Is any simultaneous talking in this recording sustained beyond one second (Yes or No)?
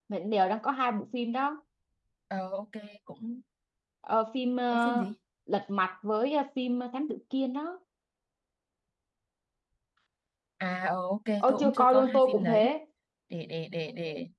Yes